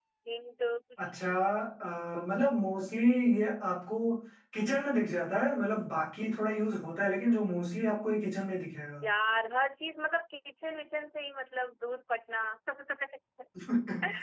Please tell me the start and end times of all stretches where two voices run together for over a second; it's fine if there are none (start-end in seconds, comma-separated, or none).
none